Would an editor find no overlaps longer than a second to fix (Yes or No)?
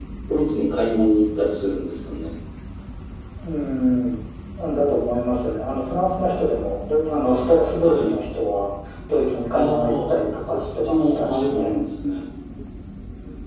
No